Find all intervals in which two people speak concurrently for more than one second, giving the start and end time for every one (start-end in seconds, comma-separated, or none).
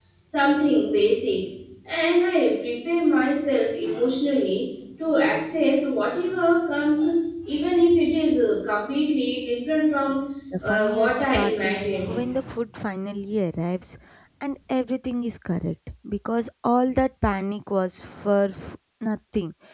10.6-12.1